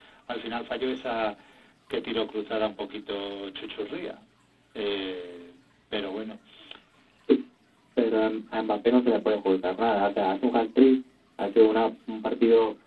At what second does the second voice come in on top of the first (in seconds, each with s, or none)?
none